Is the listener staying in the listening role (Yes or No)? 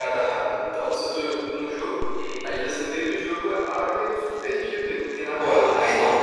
No